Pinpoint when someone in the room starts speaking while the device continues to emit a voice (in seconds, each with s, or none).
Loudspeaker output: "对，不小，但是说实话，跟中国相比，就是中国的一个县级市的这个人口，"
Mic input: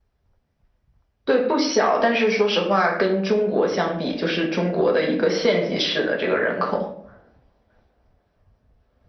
none